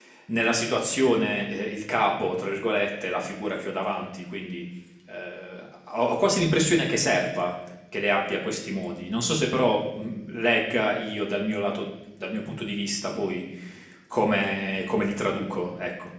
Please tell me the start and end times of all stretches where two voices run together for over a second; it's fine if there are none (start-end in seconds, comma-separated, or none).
none